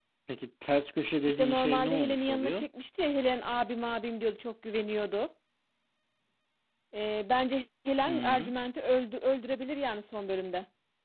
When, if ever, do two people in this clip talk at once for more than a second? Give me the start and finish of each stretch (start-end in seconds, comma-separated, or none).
1.3-2.6